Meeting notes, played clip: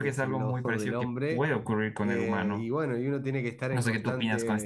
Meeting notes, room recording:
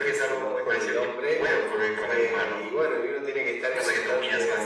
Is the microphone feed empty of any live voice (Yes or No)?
Yes